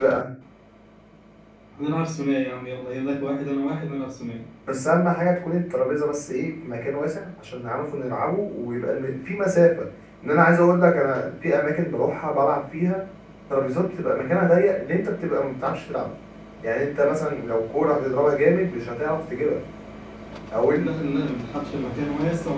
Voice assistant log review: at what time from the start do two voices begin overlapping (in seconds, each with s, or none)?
none